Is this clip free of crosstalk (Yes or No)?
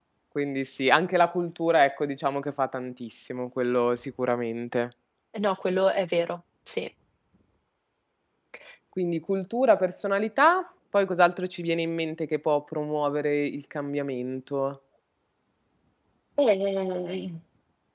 Yes